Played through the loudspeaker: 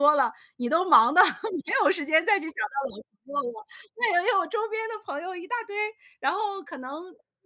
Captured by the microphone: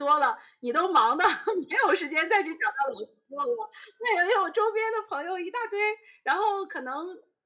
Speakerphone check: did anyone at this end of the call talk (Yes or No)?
No